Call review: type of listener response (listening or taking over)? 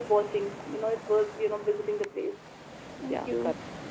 taking over